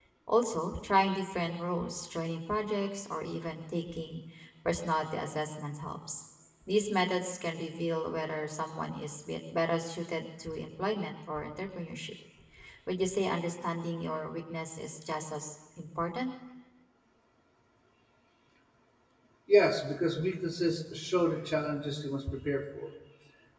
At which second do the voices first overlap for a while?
none

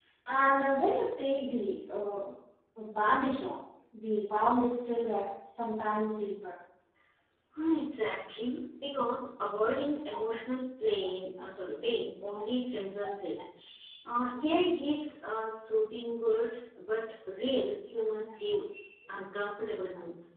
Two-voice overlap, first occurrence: none

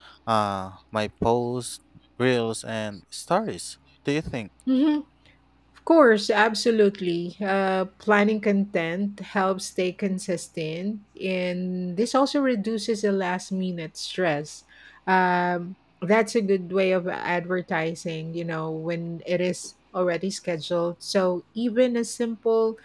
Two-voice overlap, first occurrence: none

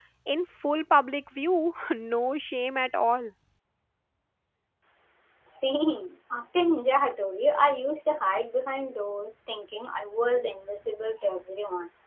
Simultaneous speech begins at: none

